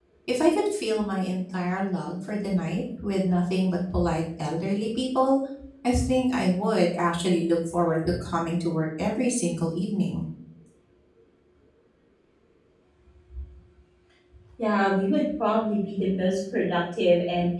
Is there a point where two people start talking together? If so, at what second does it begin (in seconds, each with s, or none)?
none